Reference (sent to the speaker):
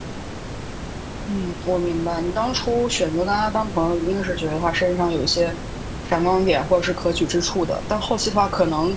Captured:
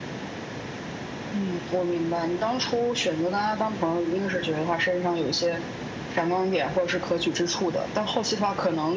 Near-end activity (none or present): none